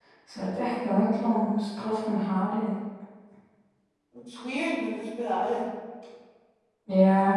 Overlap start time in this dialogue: none

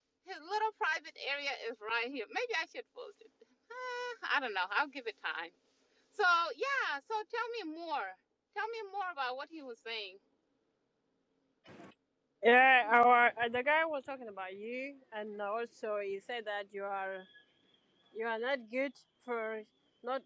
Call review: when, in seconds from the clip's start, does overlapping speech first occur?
none

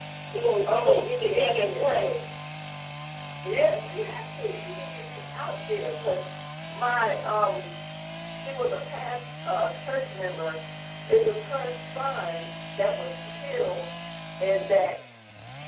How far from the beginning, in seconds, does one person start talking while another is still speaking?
0.6 s

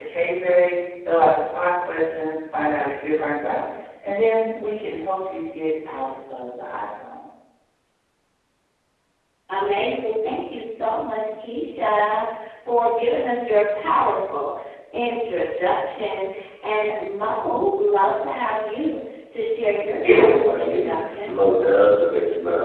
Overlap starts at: 20.0 s

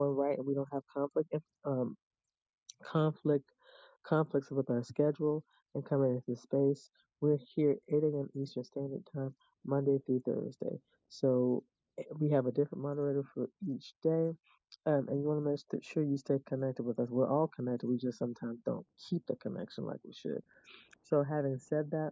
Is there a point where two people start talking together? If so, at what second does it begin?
none

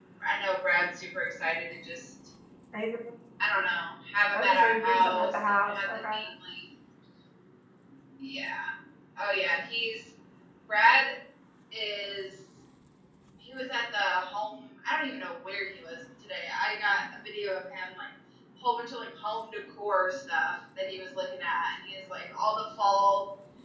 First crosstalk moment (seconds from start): 4.3 s

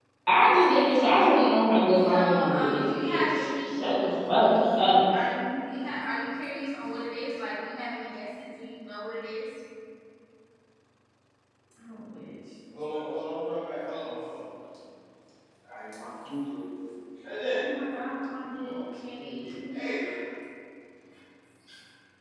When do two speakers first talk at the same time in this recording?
2.1 s

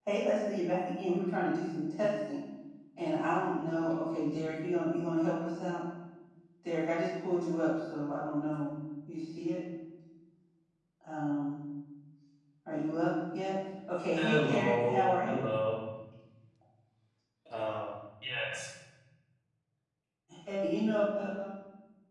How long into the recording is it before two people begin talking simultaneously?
14.1 s

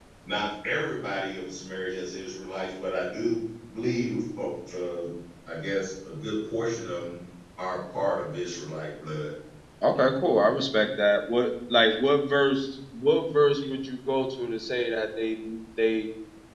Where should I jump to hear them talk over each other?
none

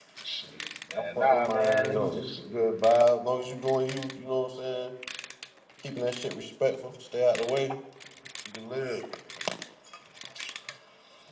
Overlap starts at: 0.9 s

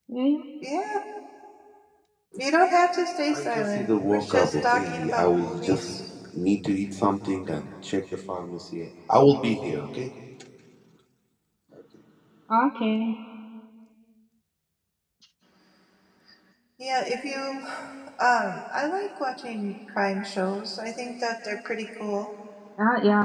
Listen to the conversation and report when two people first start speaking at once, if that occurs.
3.3 s

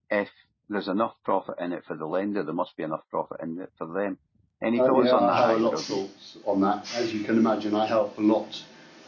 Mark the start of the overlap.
4.8 s

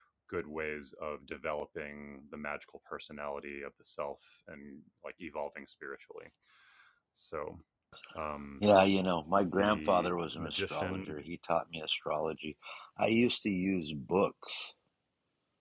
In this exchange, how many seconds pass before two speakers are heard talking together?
9.6 s

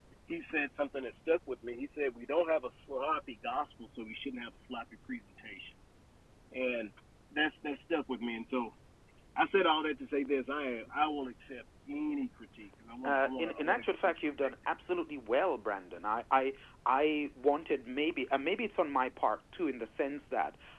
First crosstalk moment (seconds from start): 13.0 s

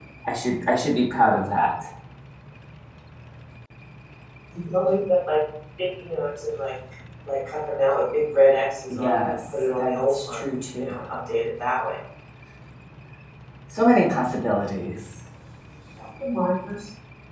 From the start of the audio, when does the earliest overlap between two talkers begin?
8.9 s

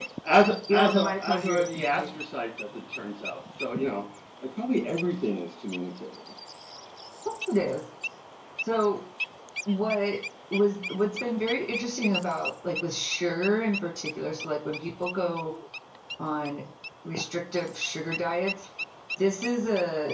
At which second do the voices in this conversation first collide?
0.7 s

